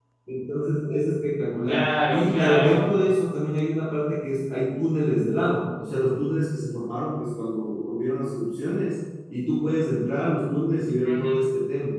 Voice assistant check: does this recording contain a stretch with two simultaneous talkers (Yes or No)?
Yes